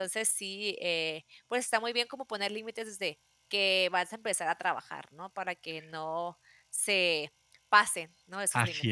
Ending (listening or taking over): taking over